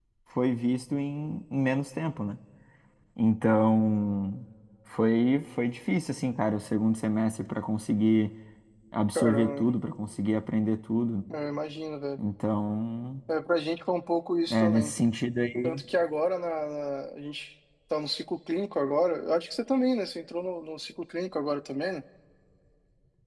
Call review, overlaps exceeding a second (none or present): none